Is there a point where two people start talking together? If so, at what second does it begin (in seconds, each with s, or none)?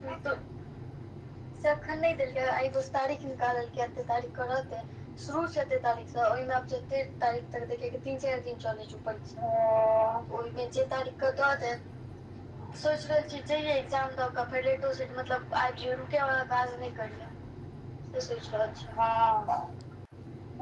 none